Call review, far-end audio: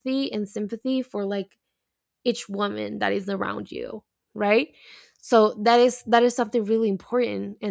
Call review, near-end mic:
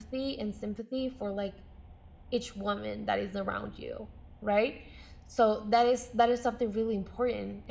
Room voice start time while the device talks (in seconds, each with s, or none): none